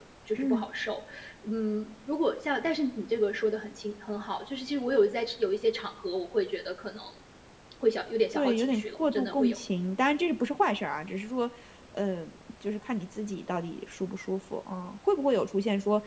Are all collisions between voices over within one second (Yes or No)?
No